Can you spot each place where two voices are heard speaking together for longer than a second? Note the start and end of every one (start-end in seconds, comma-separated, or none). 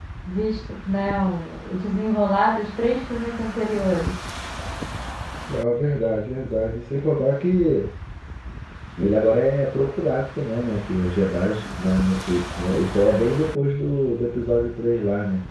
none